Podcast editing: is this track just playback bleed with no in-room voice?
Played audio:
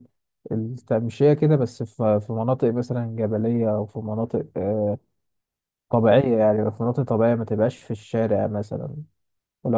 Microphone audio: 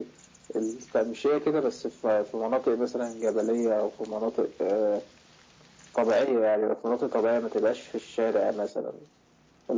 Yes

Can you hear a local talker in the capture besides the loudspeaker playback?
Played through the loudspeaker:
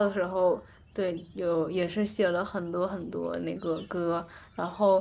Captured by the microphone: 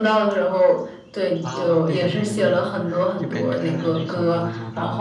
Yes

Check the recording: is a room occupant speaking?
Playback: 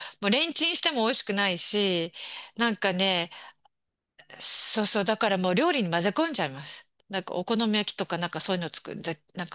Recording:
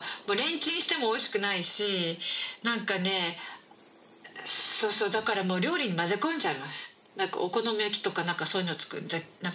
No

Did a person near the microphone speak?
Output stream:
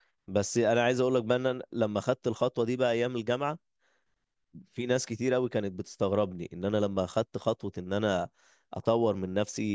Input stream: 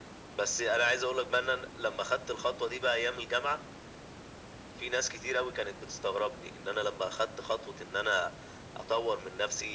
No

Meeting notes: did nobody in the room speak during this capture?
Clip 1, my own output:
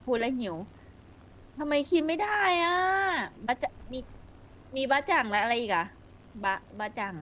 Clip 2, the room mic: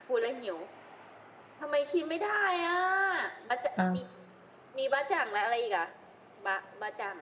No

